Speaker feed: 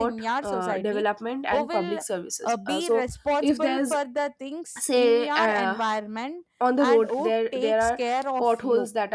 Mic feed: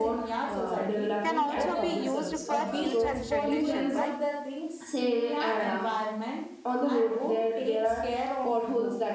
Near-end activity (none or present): present